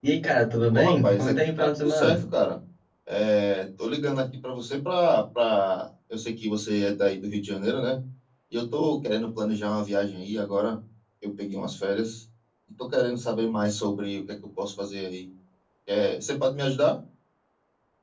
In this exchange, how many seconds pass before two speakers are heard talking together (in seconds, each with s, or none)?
0.7 s